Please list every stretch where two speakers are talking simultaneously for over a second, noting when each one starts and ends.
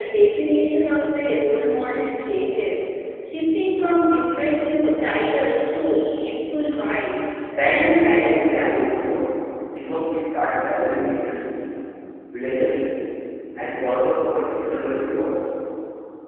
7.6-9.0

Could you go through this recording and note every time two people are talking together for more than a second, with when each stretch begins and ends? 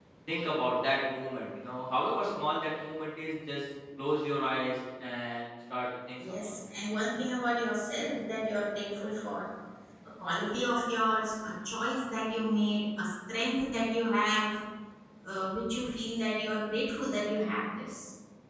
none

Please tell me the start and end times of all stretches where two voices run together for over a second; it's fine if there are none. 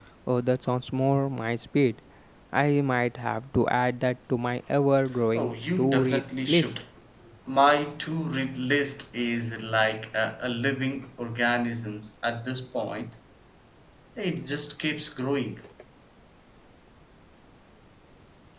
5.3-6.7

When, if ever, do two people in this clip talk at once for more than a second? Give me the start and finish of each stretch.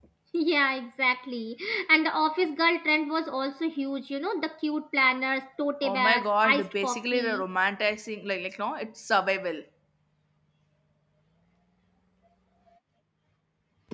5.8-7.4

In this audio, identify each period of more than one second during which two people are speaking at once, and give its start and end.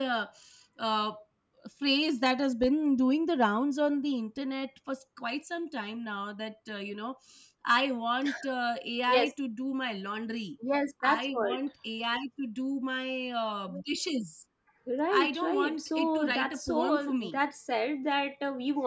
15.1-17.4

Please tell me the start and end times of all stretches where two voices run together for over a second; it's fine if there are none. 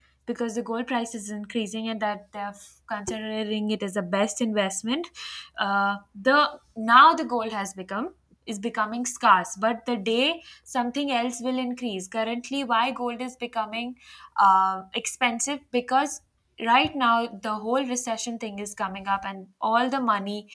none

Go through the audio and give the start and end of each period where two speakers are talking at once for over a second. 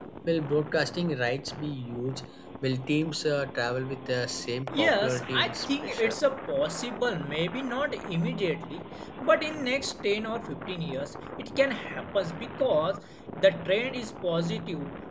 4.7-6.2

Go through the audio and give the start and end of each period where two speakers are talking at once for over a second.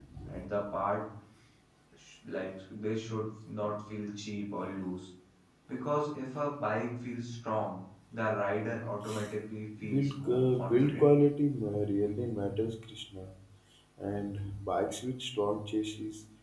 9.9-11.1

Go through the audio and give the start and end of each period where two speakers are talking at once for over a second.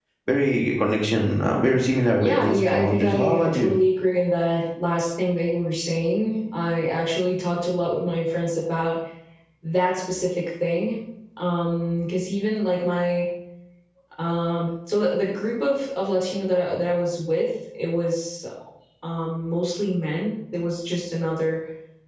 2.2-3.8

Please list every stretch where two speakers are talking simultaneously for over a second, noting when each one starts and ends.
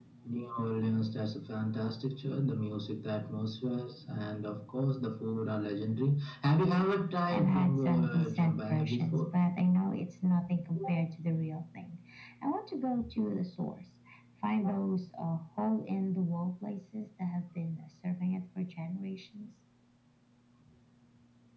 7.3-9.2

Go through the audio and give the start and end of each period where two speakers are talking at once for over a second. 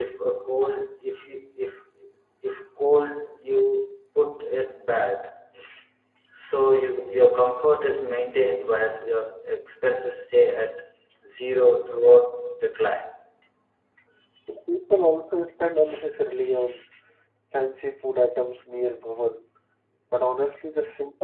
none

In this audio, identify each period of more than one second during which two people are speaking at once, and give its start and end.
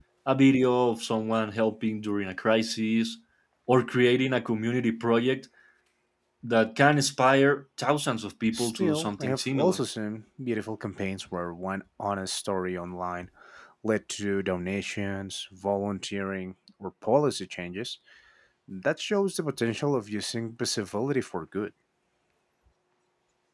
8.5-9.8

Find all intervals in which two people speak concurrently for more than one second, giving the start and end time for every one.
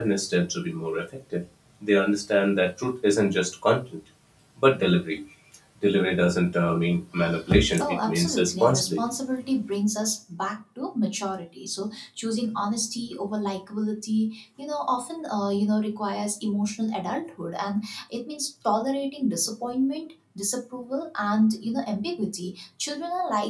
7.8-9.0

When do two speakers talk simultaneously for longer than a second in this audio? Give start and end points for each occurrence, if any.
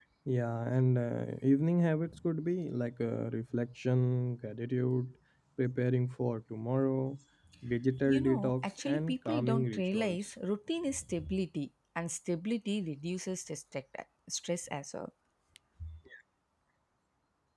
8.0-10.2

